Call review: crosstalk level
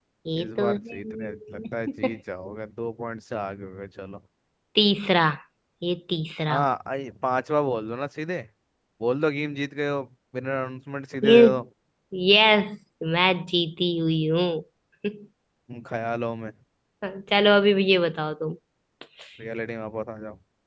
present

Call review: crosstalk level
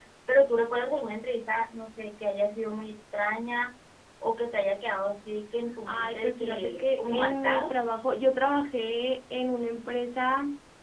present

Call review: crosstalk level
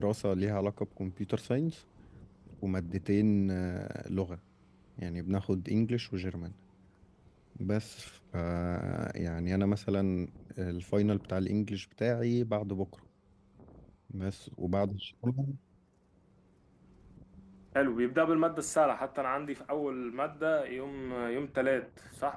none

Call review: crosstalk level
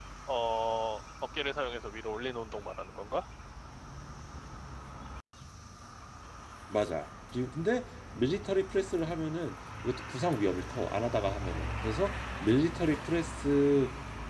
none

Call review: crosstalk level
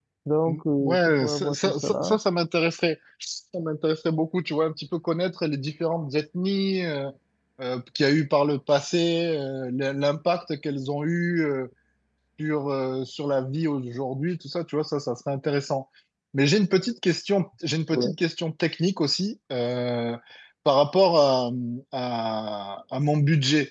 present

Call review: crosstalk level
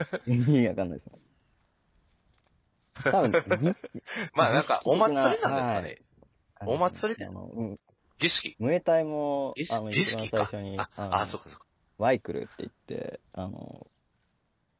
present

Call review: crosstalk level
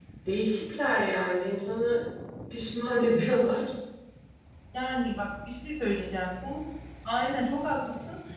none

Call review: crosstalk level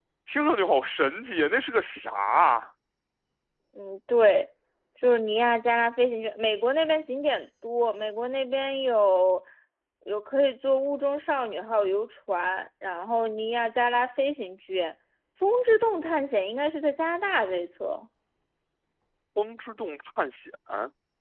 none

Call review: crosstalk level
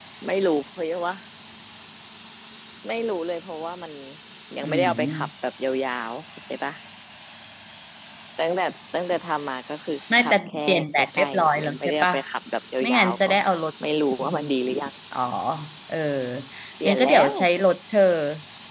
present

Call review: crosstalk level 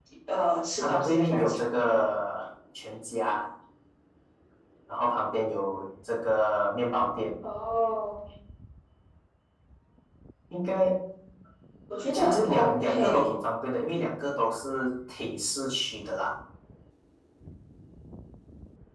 present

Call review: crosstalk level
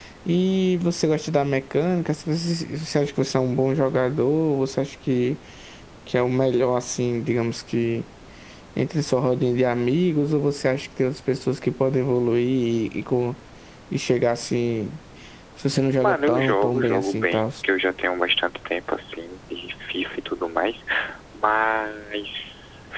present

